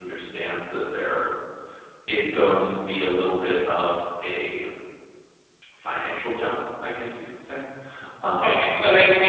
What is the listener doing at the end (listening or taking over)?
taking over